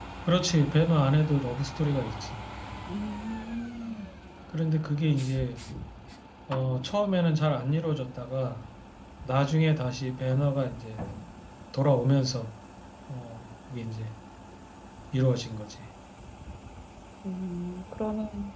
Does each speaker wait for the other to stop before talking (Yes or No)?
Yes